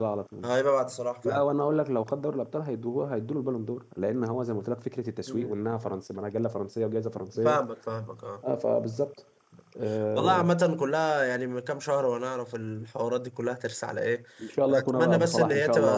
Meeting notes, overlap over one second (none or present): present